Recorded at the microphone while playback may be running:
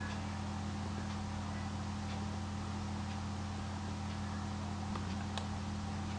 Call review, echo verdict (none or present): none